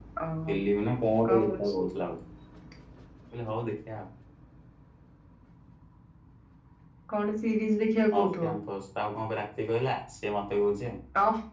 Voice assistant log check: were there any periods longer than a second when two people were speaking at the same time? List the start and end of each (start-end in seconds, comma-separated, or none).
none